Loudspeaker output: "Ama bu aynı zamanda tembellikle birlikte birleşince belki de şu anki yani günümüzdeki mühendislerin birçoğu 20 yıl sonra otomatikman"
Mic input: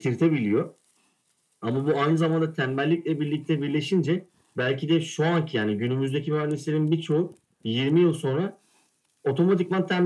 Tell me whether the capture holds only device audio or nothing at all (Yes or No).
Yes